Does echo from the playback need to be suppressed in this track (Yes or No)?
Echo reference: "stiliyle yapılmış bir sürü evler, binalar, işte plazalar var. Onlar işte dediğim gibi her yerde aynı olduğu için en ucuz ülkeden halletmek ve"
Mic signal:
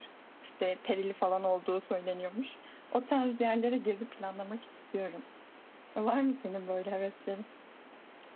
No